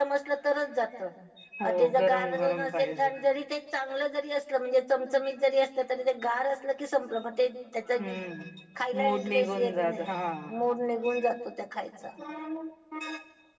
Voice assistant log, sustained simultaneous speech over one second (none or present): present